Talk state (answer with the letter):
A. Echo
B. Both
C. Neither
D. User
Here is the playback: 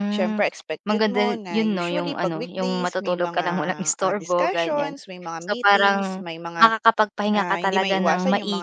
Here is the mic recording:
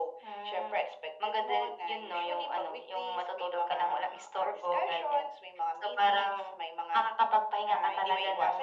A